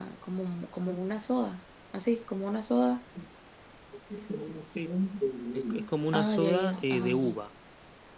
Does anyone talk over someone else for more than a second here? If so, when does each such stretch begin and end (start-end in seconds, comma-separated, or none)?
6.1-7.4